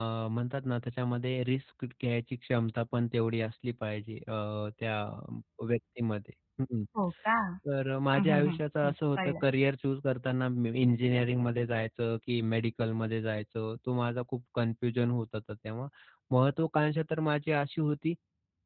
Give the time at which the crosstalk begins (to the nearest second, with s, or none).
8 s